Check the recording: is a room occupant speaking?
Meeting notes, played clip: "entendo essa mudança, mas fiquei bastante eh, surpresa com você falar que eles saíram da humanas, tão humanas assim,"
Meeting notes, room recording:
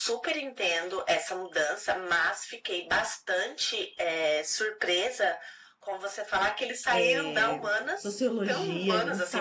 Yes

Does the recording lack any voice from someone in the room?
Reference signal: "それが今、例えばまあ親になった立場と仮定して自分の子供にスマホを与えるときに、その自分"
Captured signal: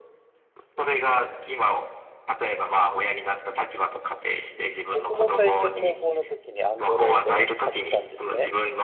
No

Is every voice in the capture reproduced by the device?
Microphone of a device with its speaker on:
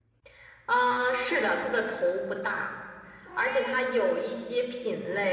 Yes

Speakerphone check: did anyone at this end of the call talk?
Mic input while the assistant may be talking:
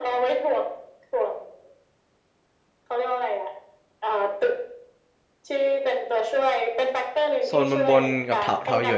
Yes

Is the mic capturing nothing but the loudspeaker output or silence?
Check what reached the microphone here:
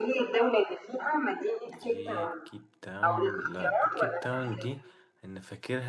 No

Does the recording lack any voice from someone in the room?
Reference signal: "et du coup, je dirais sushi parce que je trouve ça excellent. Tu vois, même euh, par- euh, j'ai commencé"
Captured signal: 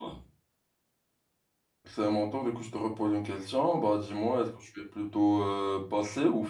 No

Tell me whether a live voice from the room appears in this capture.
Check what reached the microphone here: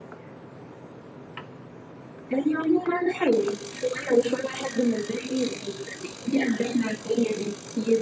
No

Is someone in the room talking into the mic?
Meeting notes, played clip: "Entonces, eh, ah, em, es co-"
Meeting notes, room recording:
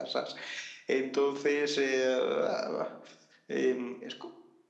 No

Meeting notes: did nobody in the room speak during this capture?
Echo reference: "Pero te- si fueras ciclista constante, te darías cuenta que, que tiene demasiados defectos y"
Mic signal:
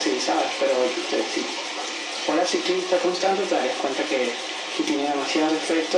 Yes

